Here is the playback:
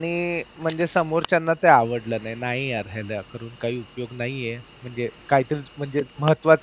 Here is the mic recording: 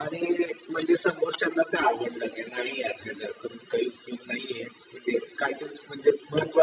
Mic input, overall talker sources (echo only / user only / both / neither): echo only